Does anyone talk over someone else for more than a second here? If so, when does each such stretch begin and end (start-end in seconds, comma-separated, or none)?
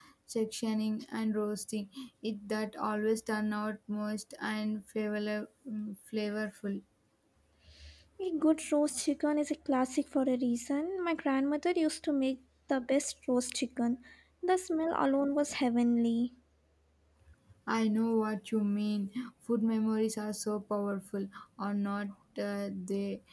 none